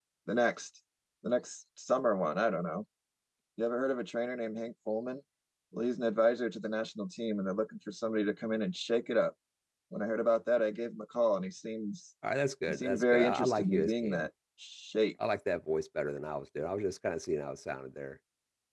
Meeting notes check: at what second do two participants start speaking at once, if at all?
12.7 s

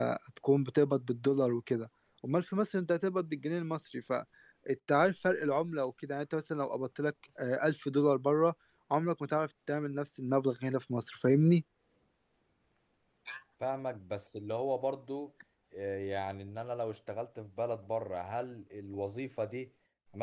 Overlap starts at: none

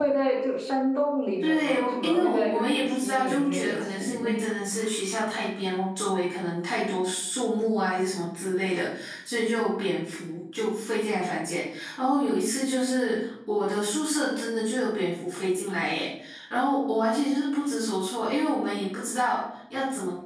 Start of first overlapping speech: 1.4 s

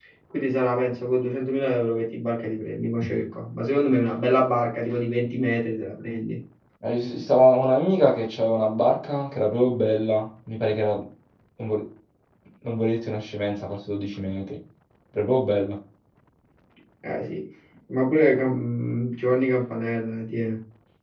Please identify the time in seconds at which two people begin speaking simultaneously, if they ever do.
none

